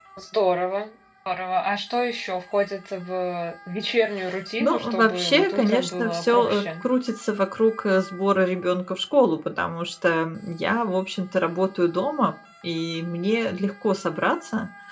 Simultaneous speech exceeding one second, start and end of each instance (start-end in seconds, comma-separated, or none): 4.6-6.6